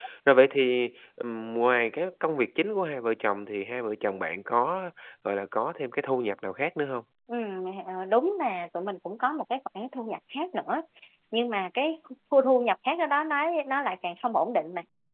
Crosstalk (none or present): none